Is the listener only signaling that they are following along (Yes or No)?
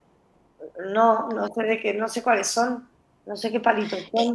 No